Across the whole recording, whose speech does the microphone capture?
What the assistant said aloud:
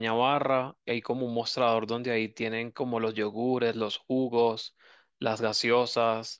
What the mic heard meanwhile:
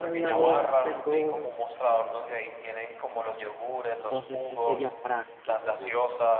both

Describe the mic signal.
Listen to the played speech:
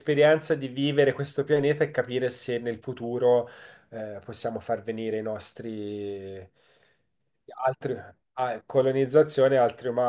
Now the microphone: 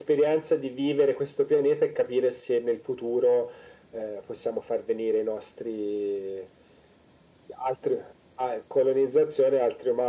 echo only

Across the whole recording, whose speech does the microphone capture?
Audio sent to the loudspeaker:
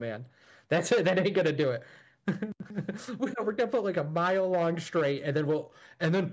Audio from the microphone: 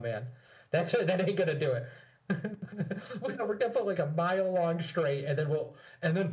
echo only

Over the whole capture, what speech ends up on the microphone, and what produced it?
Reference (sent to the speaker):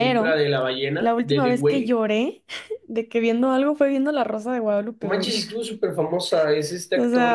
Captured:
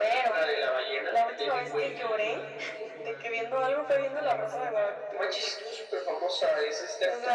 both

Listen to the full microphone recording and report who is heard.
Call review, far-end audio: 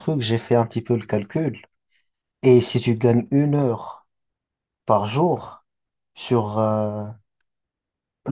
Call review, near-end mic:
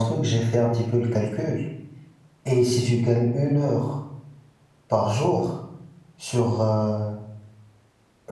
echo only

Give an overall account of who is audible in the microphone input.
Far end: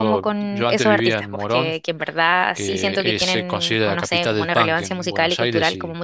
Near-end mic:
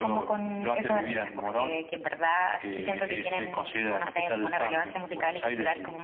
echo only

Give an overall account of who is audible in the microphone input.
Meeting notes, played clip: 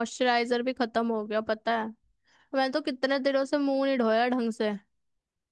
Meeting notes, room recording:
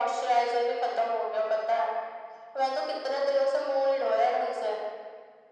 echo only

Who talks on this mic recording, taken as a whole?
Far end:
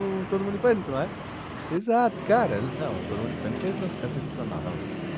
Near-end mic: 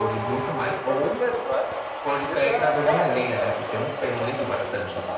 both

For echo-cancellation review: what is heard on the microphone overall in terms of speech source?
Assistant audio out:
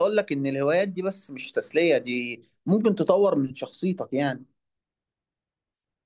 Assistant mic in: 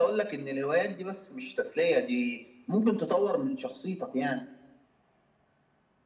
echo only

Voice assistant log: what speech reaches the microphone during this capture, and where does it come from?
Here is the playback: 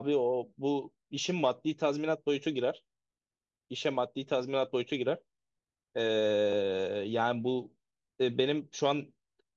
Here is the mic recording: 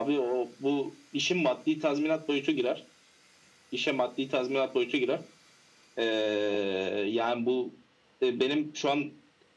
echo only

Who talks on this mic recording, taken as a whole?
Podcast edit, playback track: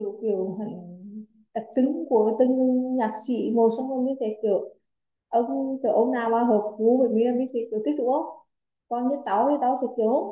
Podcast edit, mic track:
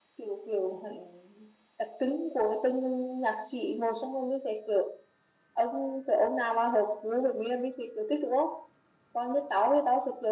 echo only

